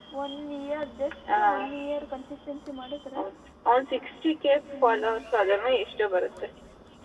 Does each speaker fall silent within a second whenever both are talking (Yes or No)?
Yes